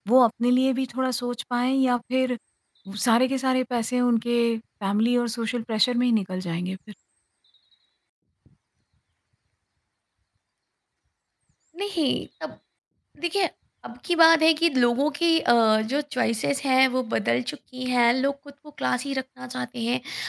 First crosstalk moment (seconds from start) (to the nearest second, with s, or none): none